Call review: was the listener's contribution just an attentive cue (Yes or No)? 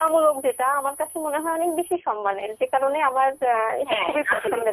No